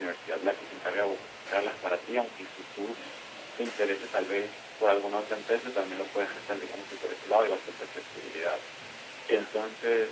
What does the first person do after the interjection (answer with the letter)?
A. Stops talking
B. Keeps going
B